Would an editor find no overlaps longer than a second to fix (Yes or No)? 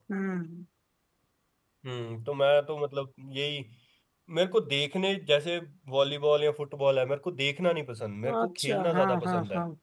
No